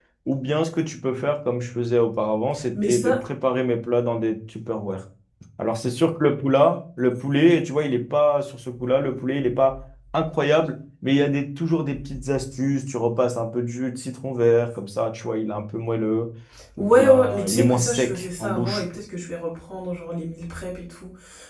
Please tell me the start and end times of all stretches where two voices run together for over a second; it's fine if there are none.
16.8-18.8

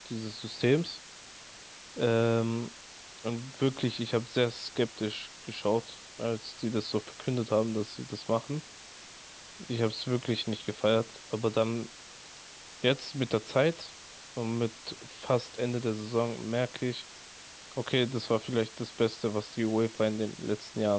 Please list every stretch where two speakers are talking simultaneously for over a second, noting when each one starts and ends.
none

